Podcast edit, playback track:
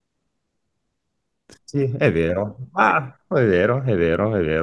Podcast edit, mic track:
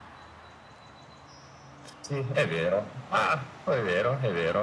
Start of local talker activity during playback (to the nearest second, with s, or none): none